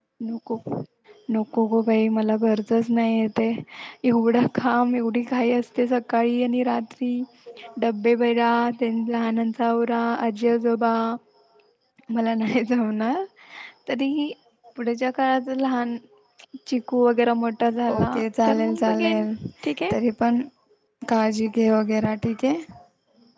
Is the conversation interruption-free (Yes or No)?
No